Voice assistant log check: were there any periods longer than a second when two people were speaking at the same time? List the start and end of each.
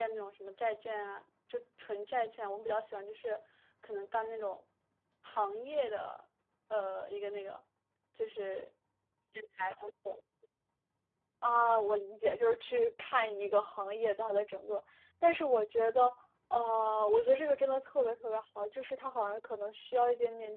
none

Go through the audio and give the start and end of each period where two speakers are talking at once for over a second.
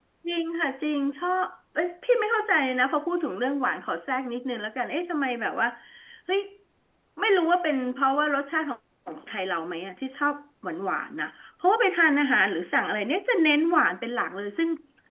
none

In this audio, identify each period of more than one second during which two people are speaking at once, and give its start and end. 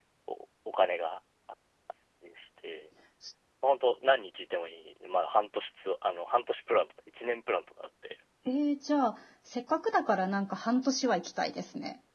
none

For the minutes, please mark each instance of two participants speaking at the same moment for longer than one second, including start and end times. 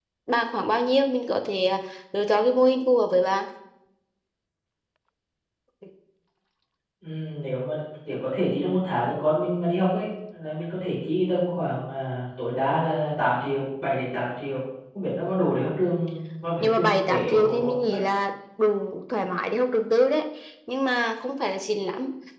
16.6-18.0

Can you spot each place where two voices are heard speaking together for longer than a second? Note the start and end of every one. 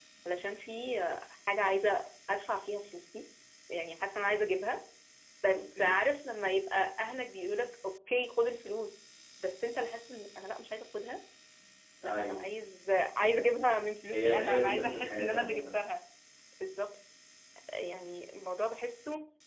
14.1-15.8

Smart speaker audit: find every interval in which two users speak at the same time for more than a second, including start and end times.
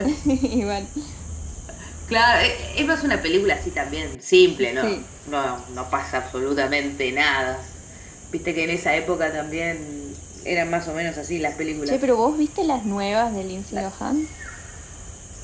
none

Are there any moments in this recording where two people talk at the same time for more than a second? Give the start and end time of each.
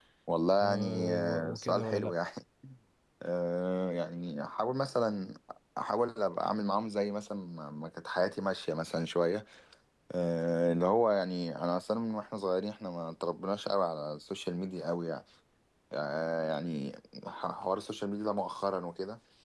0.6-2.1

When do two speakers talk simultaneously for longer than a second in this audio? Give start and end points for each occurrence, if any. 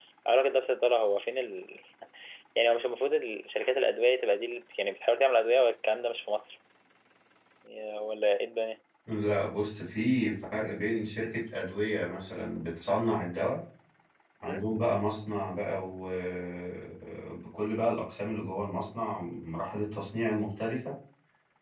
none

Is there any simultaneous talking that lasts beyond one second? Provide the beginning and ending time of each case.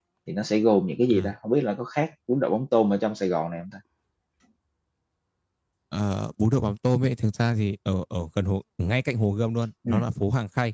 none

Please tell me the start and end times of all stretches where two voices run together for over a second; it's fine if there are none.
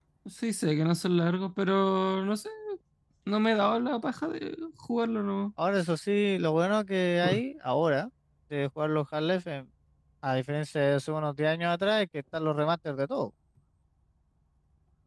none

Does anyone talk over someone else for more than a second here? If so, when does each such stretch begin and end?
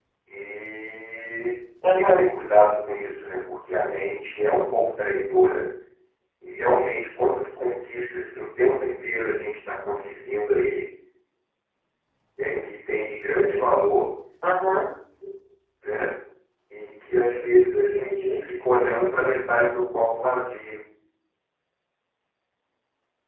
none

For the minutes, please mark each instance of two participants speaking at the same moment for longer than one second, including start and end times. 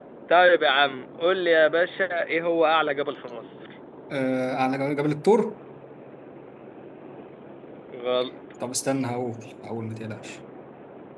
none

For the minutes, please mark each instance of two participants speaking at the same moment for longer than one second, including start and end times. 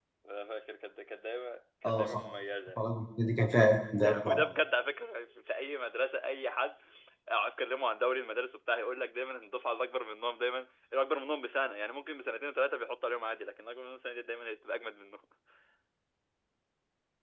none

